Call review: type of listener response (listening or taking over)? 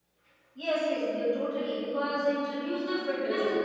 listening